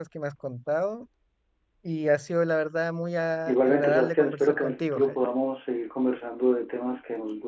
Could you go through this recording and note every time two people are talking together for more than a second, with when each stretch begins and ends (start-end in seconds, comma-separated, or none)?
3.5-5.2